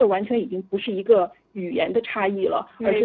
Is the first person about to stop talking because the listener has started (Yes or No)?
No